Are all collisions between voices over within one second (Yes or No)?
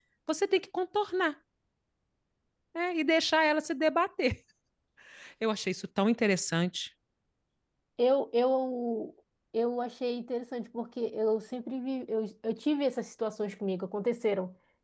Yes